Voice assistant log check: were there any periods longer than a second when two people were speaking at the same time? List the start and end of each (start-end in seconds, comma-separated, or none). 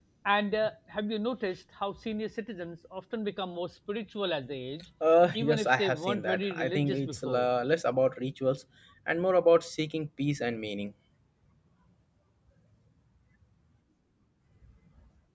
5.3-7.5